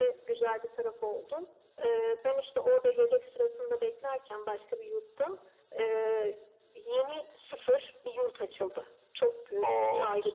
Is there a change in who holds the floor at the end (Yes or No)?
No